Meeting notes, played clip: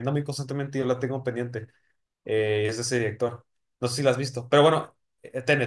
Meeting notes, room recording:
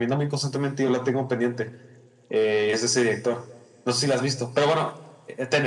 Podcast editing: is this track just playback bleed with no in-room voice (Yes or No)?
Yes